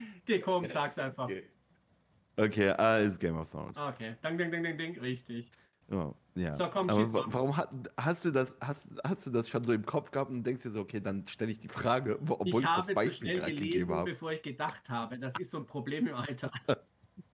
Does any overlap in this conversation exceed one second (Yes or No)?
Yes